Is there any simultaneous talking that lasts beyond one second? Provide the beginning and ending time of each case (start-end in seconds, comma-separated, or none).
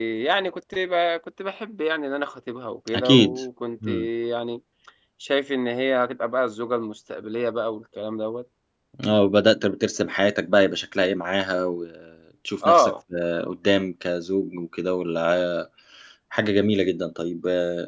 none